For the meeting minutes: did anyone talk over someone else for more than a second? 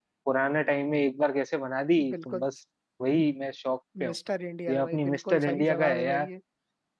Yes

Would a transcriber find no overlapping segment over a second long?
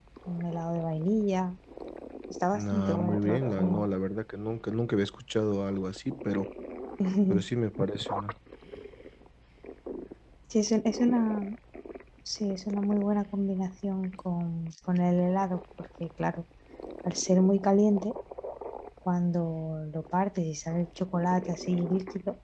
No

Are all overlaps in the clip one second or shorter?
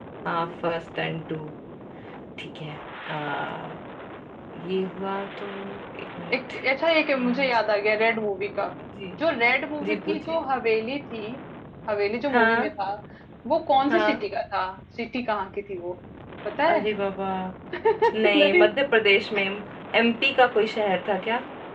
Yes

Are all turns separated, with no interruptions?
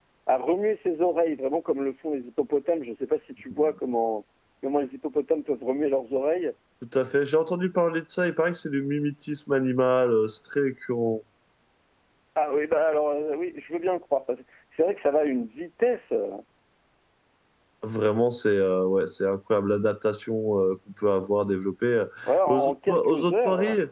No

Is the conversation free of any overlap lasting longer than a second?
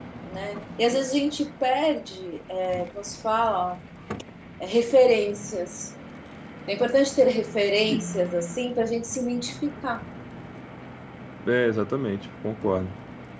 Yes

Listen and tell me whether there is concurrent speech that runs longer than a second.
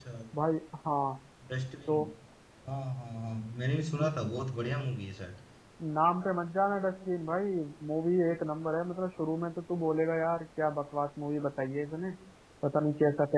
No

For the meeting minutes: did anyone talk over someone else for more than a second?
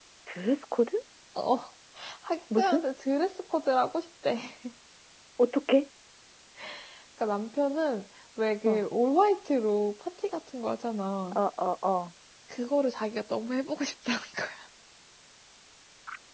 No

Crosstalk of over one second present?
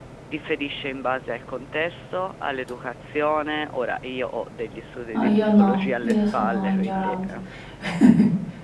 Yes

